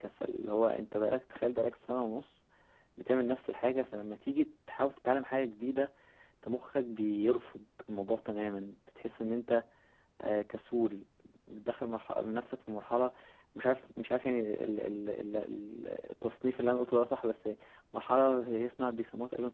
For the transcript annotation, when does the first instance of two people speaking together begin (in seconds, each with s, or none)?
none